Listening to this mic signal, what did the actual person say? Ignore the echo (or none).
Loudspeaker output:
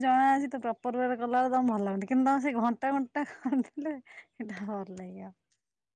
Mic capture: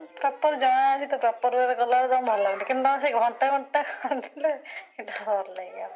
none